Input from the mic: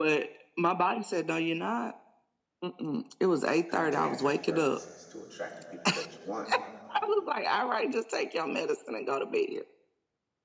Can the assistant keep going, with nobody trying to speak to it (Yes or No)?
No